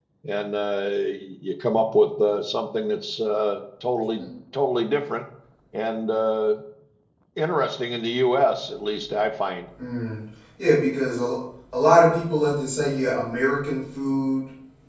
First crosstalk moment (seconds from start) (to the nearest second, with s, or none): none